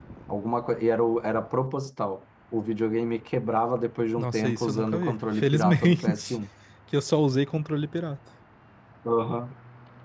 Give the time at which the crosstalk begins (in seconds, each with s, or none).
4.2 s